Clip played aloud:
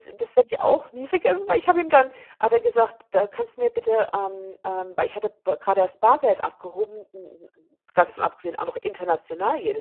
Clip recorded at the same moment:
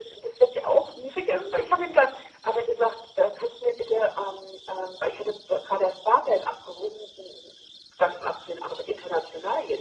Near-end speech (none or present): none